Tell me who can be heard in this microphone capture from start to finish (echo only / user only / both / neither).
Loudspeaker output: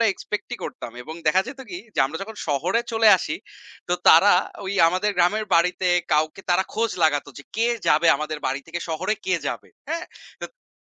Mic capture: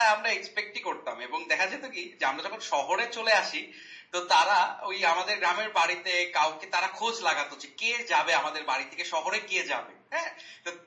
echo only